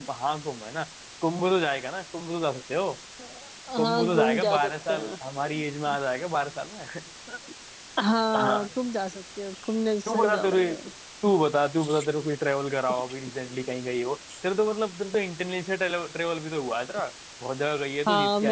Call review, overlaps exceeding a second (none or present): present